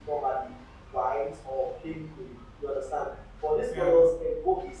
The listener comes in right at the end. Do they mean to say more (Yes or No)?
No